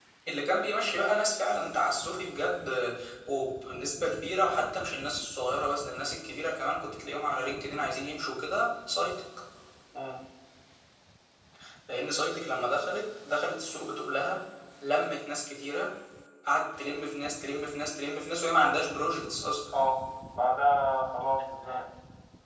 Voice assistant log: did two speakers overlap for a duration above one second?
No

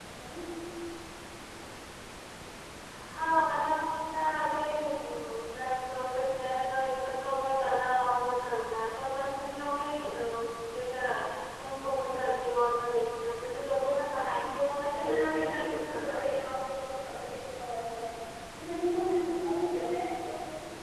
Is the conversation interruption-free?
No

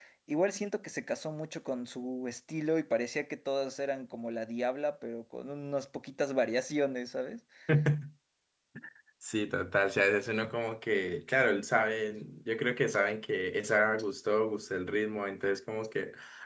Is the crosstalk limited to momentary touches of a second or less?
Yes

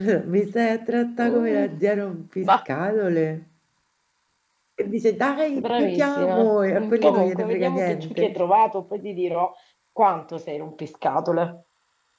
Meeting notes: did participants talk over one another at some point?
Yes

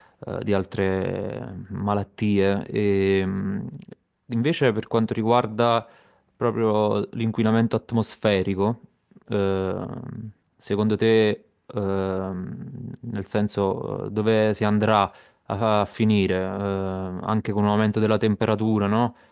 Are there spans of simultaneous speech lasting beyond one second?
No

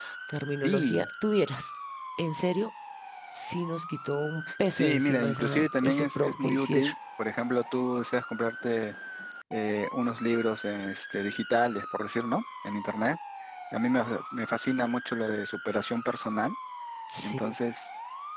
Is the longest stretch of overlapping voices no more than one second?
No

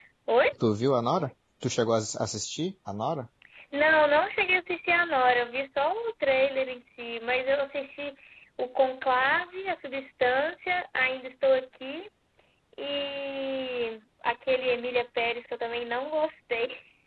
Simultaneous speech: No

